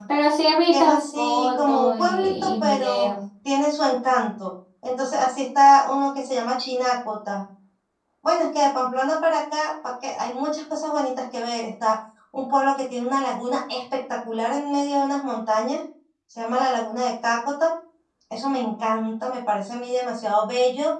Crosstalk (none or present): present